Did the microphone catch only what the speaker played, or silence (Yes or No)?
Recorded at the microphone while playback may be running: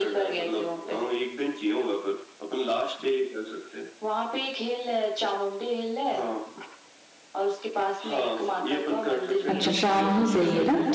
No